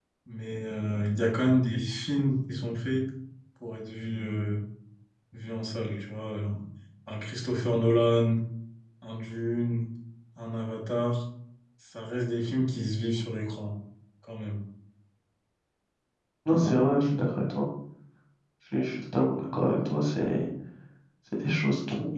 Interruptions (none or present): none